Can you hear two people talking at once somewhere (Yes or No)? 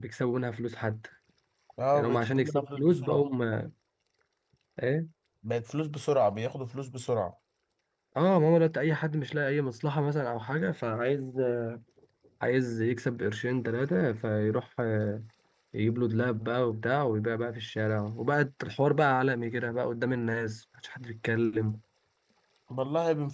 Yes